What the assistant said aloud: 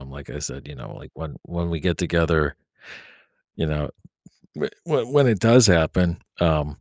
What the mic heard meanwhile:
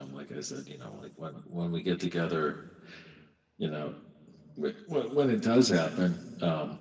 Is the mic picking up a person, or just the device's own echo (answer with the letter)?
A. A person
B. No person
B